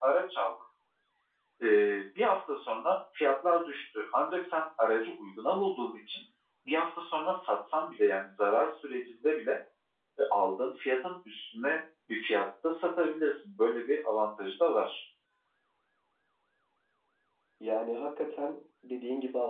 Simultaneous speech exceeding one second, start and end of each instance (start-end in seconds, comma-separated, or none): none